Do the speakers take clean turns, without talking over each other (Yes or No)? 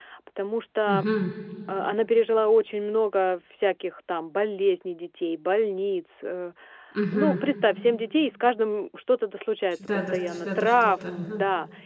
No